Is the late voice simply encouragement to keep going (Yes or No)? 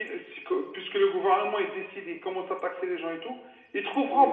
Yes